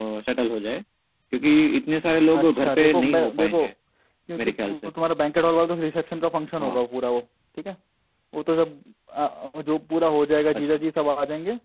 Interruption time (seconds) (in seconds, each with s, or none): 2.4 s